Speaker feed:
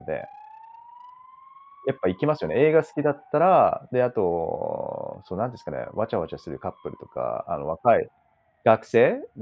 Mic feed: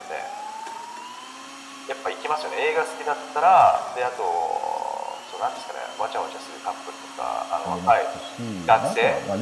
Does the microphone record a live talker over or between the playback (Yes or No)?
Yes